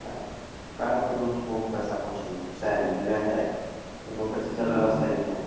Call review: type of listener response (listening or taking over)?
listening